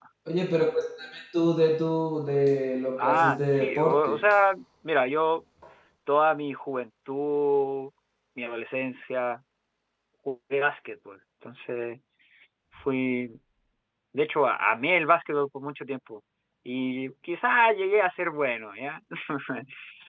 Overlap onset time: 3 s

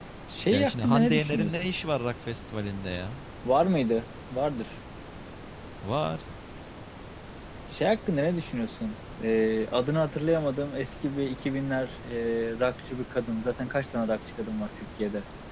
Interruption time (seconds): 1 s

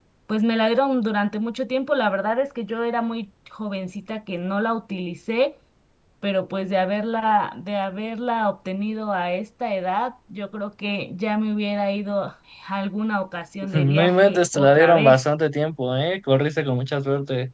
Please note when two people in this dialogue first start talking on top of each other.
14 s

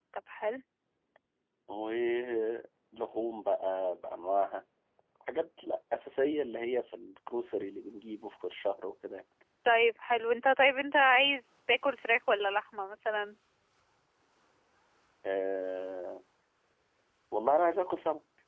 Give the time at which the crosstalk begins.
none

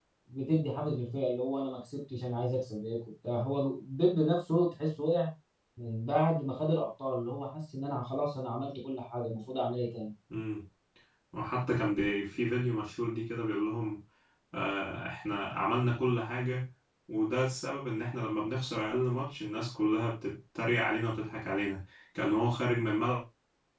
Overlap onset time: none

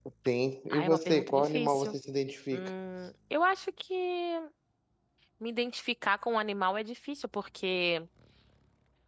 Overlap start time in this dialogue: 1 s

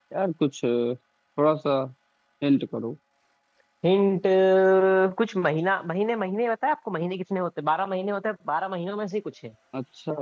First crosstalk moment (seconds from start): none

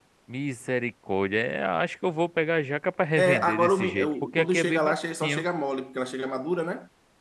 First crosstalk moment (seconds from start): 3 s

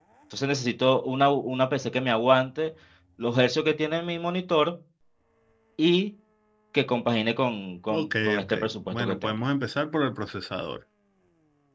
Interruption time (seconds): 8 s

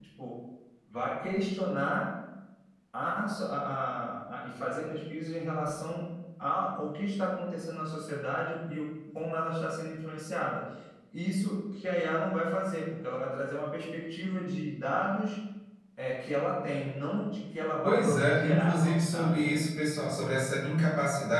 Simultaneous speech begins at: 18 s

